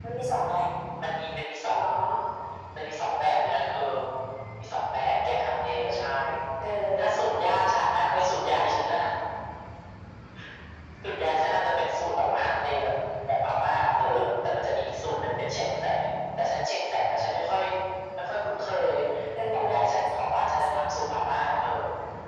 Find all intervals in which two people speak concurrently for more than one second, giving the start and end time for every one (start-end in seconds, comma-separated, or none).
19.5-20.7